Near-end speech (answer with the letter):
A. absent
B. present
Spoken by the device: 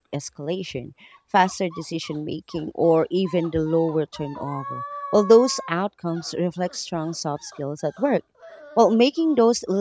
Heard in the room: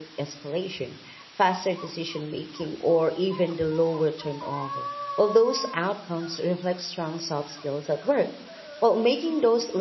A